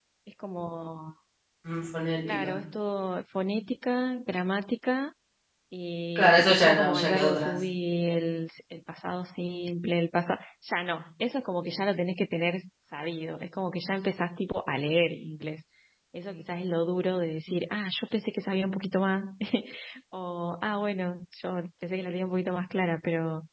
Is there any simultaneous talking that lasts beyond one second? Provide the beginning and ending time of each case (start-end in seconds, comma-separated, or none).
6.2-7.5